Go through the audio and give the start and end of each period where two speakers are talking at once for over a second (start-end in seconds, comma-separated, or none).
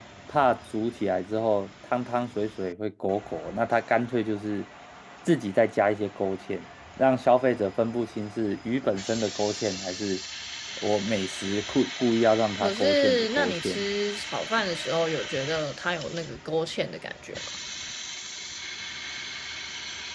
12.6-13.8